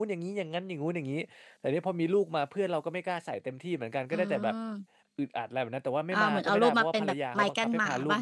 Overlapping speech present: Yes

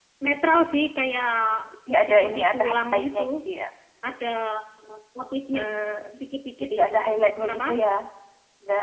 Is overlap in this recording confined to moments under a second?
No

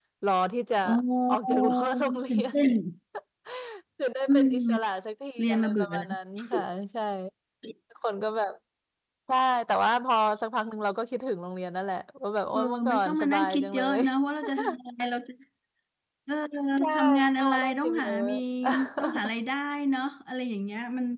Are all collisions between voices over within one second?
No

